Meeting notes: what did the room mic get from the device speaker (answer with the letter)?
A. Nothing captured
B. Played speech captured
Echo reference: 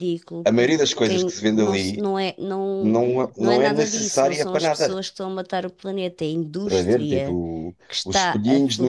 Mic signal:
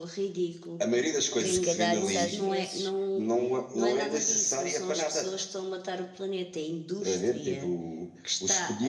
B